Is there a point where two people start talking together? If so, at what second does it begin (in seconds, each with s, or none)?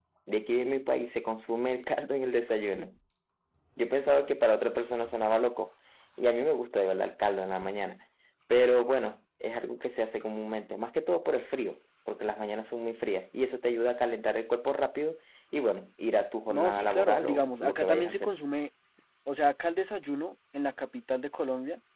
16.5 s